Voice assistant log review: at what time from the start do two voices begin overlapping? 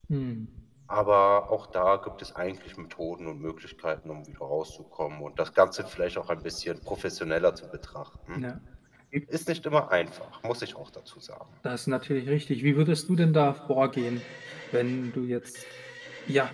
none

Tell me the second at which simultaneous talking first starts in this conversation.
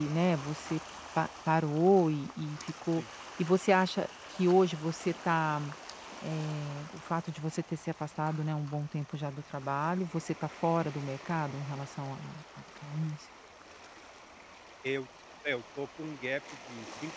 none

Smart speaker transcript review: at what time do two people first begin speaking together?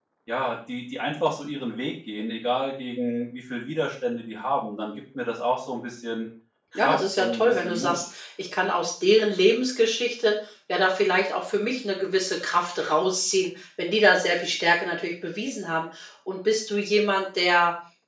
7 s

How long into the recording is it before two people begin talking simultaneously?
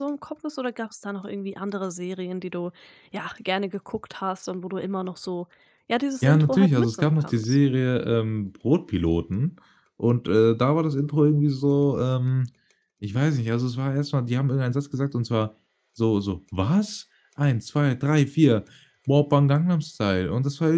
6 s

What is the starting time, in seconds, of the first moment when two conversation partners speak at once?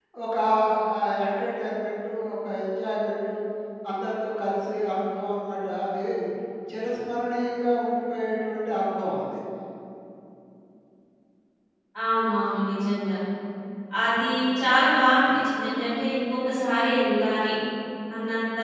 none

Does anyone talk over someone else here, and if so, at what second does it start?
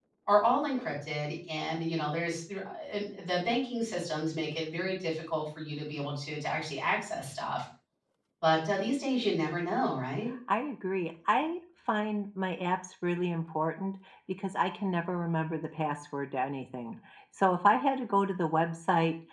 none

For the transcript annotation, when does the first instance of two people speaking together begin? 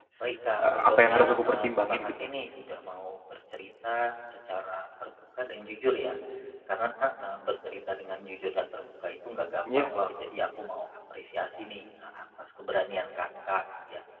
1 s

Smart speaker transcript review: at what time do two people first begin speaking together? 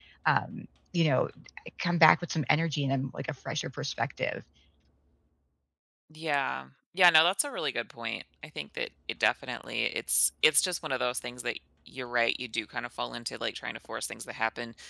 none

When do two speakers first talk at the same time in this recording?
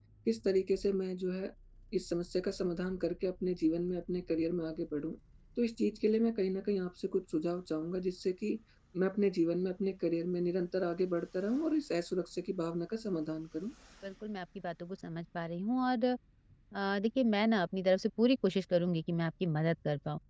none

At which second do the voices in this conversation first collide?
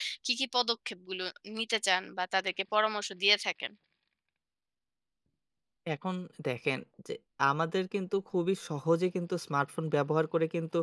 none

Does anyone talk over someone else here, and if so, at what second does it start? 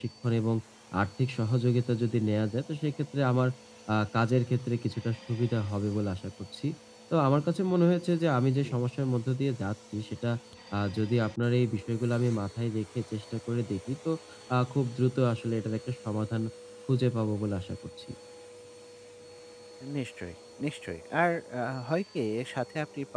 none

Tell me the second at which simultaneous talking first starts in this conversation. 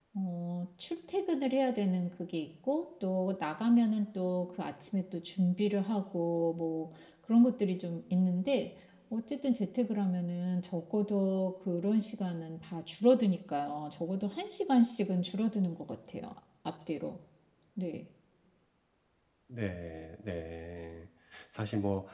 none

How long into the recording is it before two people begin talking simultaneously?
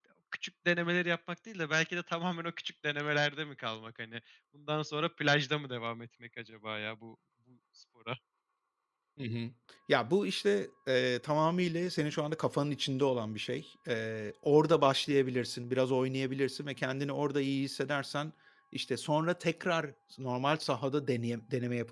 none

